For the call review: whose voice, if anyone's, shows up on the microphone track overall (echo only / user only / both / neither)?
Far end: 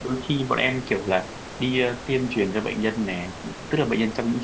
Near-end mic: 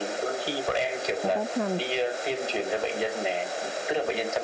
both